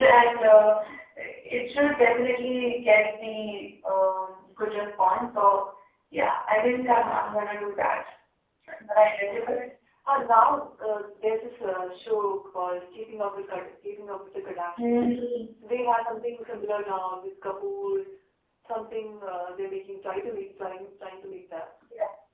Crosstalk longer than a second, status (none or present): none